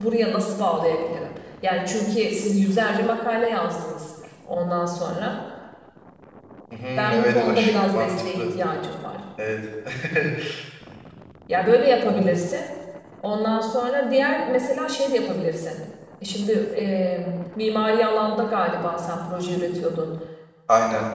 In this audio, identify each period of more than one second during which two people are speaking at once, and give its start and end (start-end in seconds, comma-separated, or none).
7.0-8.4